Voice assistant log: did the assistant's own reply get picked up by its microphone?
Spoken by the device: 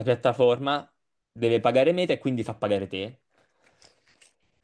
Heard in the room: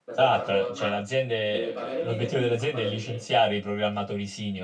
Yes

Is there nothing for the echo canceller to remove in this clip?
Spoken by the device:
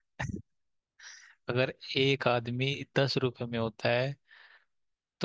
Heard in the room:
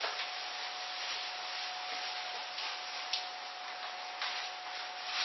Yes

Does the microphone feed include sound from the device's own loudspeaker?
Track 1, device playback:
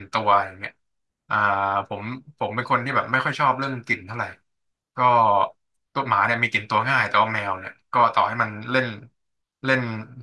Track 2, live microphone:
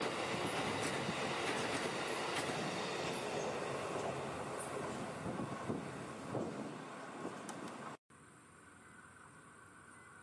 No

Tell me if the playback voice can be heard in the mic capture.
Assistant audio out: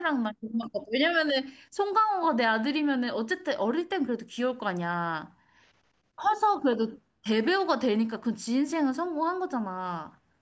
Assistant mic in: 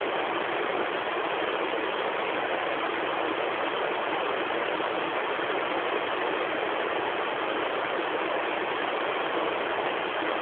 No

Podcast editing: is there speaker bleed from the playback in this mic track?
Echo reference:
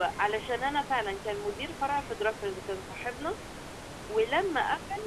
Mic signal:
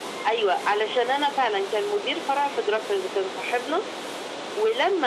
Yes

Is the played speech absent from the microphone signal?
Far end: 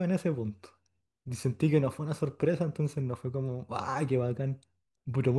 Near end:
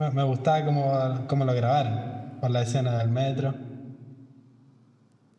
Yes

